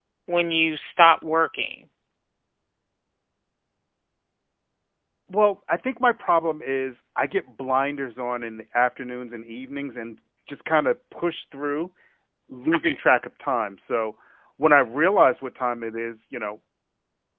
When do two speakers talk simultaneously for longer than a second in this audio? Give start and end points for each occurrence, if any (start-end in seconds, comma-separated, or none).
none